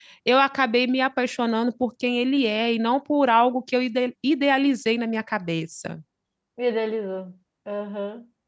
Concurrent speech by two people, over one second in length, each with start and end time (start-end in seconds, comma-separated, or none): none